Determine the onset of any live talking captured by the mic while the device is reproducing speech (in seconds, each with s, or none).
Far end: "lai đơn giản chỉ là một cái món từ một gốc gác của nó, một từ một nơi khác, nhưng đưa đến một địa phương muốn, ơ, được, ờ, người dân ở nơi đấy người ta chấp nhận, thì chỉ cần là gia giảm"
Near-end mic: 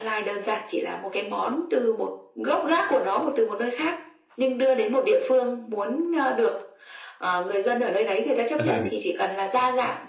8.6 s